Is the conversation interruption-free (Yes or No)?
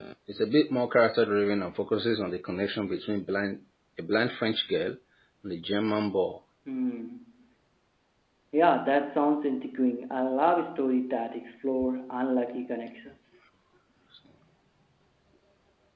Yes